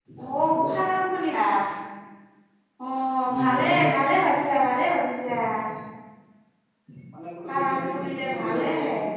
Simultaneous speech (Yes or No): Yes